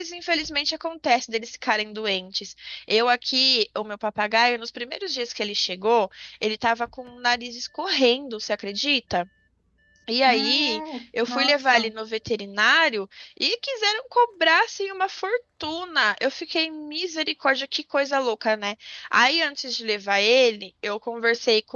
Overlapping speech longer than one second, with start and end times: 10.3-11.9

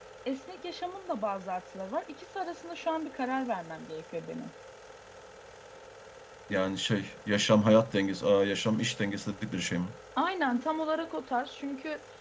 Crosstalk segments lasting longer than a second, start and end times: none

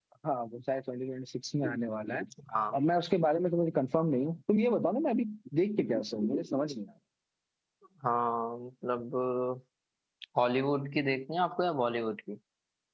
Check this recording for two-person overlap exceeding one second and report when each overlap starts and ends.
none

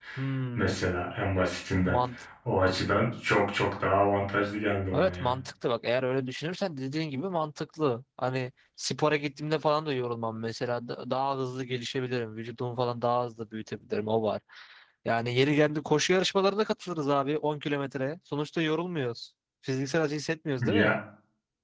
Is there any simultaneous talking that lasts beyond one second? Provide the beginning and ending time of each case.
none

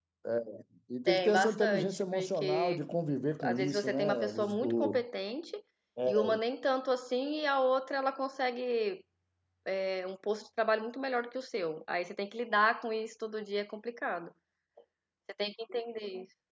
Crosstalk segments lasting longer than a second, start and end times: 1.1-2.7, 3.4-5.0

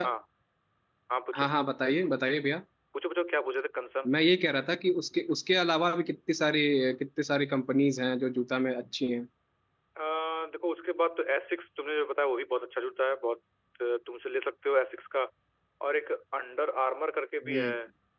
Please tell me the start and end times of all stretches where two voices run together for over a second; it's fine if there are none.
none

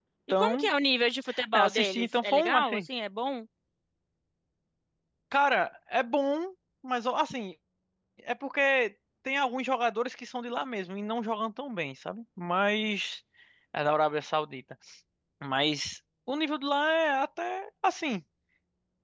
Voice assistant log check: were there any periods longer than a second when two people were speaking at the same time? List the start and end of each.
1.5-2.9

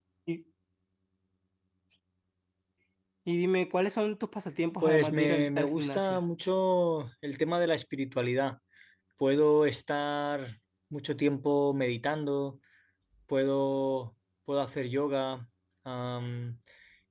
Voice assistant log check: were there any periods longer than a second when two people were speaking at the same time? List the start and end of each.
4.8-6.2

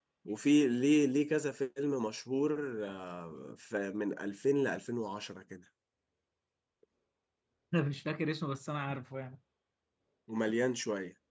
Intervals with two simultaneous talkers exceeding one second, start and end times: none

